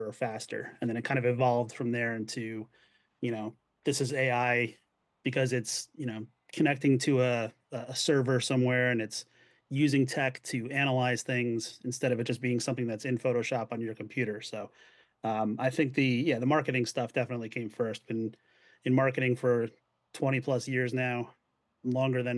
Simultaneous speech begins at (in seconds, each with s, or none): none